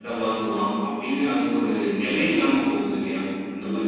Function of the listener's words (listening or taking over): taking over